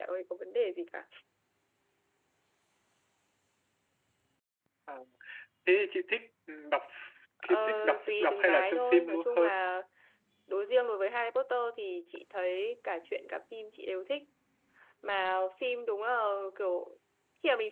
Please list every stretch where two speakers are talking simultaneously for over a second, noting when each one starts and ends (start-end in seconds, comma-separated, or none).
7.4-9.6